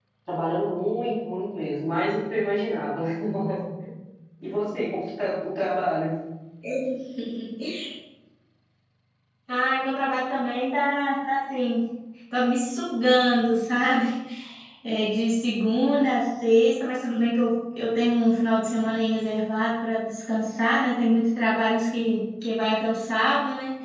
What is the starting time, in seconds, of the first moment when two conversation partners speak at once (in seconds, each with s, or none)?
none